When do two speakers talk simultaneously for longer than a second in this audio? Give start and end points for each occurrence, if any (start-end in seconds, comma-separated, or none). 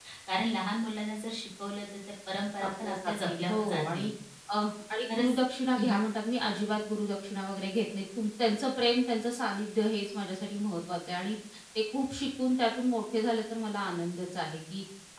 2.6-4.0